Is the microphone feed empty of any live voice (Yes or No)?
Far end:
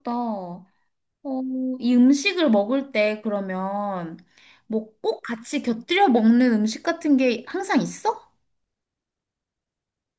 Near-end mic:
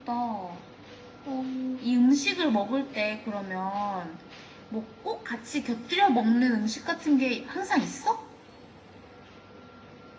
Yes